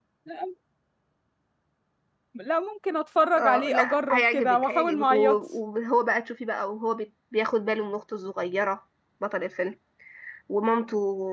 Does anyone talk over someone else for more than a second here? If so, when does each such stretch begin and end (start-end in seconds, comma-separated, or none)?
3.3-5.4